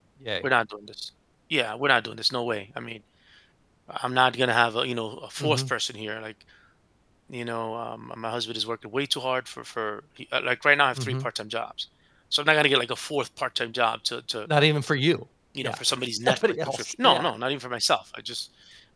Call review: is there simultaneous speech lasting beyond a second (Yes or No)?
Yes